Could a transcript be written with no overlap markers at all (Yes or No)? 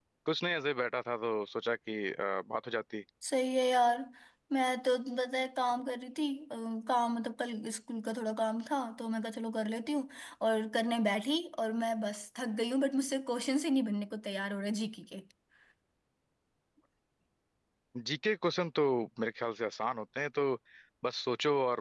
Yes